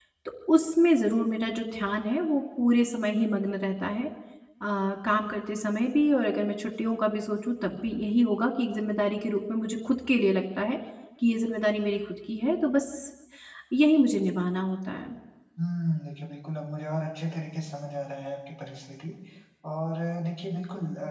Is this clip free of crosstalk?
Yes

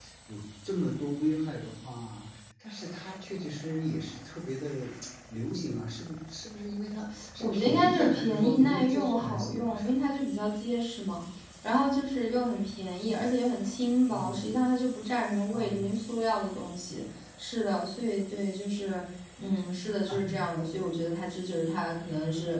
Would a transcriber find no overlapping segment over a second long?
No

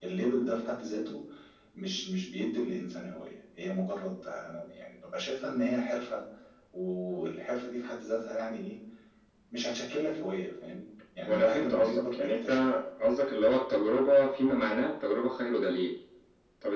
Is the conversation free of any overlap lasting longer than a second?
No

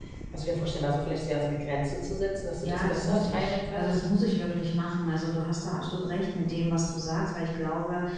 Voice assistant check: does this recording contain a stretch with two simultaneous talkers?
Yes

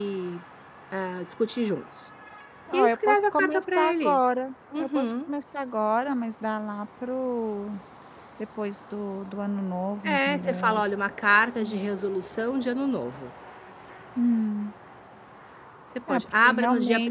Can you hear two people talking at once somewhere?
Yes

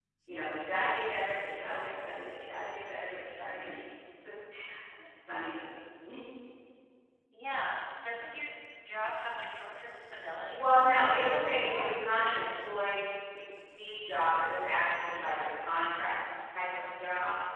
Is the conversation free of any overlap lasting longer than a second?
No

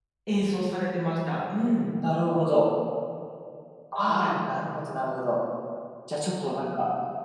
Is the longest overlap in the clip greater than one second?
No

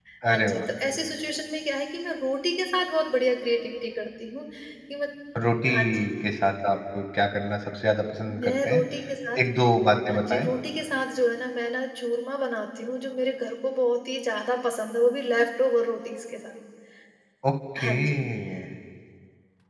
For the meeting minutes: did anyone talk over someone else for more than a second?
No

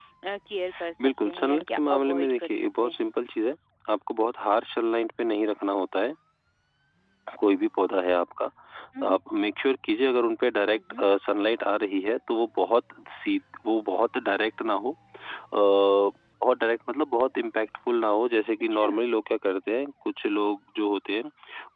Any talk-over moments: Yes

